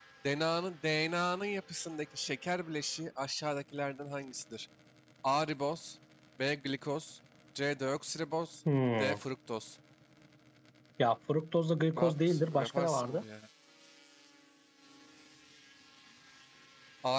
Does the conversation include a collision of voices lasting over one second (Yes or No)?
Yes